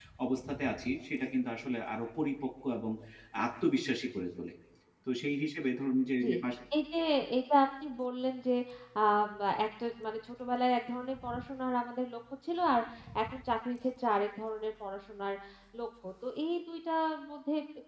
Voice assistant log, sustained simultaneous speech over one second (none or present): none